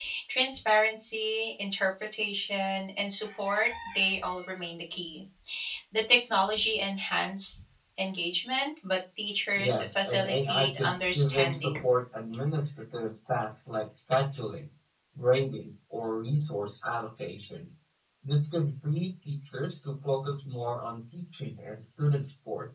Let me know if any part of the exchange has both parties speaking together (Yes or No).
Yes